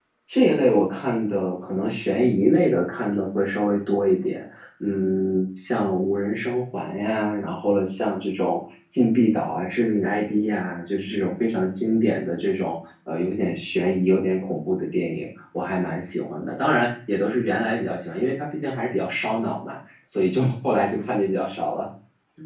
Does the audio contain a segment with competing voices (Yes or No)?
No